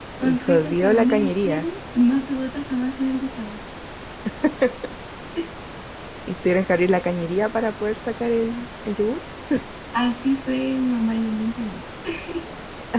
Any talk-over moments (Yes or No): Yes